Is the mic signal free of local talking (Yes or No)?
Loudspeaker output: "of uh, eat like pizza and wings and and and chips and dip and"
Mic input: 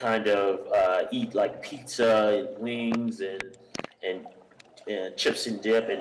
Yes